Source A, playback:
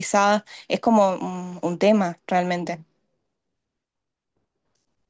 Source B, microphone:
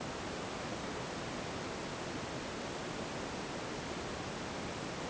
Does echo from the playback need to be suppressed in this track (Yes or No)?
No